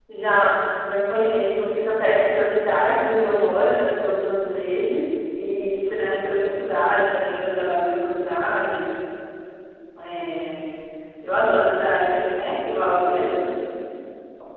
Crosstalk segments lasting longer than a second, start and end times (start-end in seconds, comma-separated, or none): none